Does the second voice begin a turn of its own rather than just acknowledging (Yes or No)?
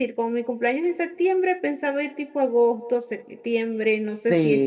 Yes